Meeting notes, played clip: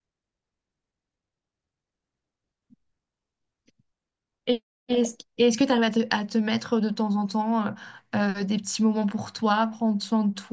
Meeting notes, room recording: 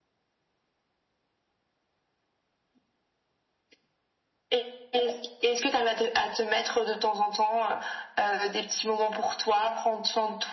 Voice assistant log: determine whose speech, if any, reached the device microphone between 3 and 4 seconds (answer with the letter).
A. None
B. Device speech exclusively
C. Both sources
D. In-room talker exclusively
A